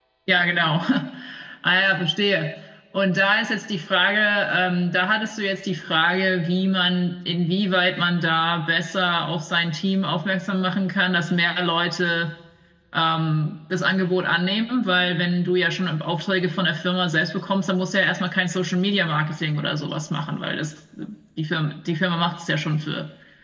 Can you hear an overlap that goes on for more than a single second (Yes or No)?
No